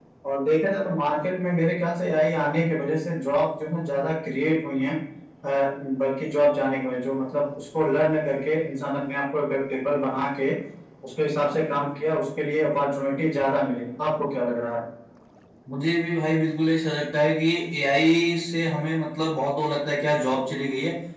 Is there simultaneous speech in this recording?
No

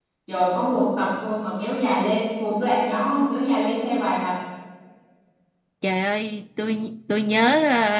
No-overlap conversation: Yes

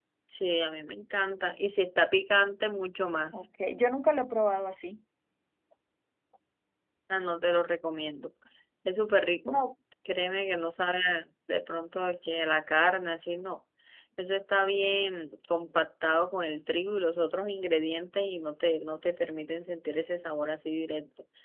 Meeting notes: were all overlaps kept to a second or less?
Yes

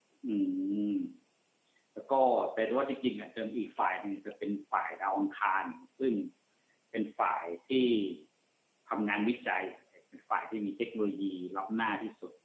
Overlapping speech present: No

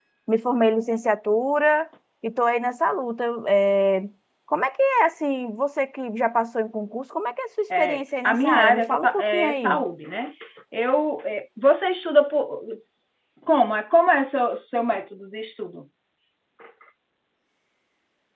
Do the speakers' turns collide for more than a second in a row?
Yes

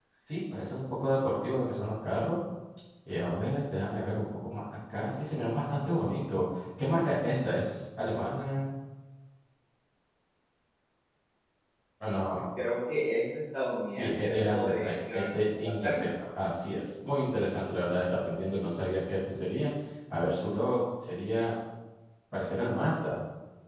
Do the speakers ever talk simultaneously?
Yes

